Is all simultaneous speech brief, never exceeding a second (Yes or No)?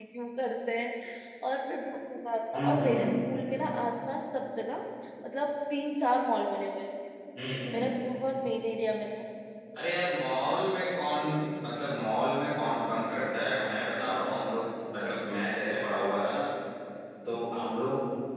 Yes